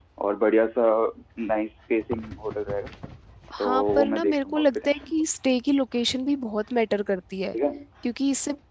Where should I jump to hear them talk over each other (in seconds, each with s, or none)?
3.6 s